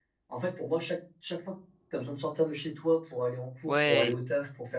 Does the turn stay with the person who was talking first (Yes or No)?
Yes